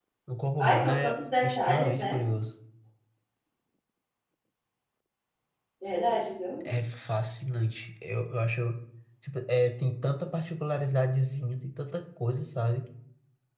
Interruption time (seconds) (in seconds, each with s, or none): 0.6 s